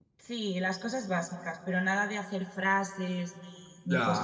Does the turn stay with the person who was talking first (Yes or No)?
No